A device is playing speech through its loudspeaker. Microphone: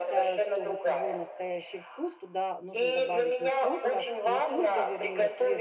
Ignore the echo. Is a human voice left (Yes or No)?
Yes